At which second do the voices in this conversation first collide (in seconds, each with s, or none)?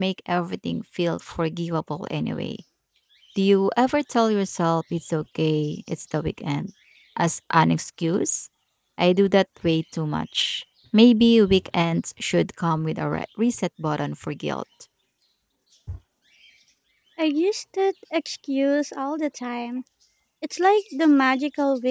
none